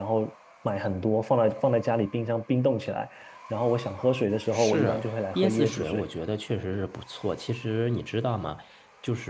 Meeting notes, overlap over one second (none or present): present